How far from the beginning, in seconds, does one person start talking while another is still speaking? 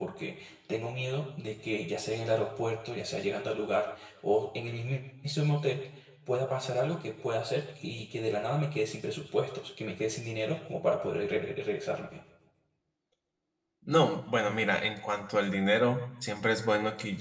none

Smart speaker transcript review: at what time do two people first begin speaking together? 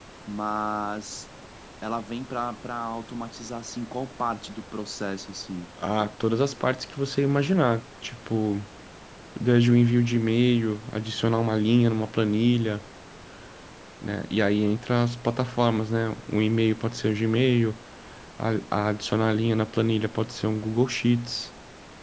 none

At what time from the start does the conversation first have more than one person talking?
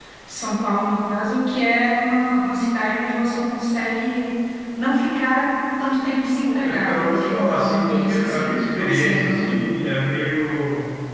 6.5 s

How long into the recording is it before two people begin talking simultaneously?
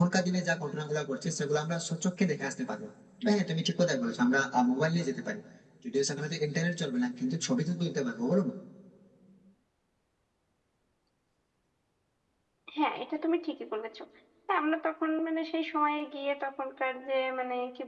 none

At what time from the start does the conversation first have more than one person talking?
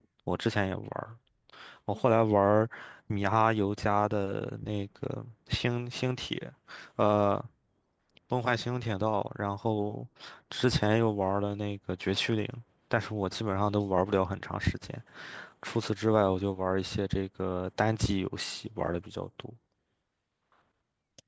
none

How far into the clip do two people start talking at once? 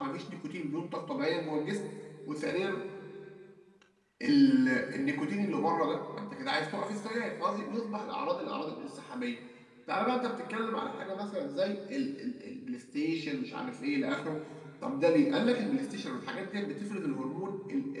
none

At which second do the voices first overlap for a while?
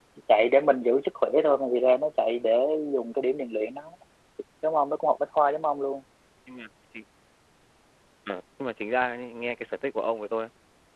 none

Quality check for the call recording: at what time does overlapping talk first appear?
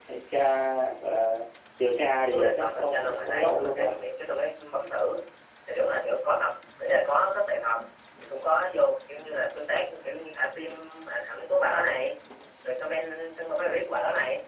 2.3 s

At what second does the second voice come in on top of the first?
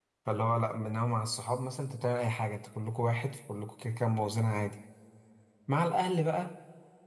none

